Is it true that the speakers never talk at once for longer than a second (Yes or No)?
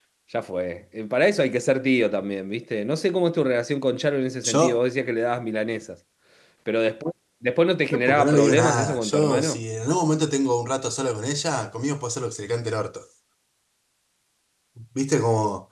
No